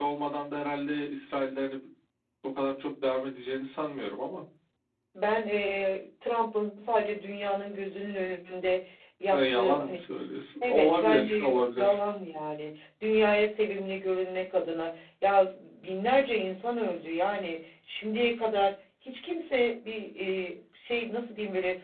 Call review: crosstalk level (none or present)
present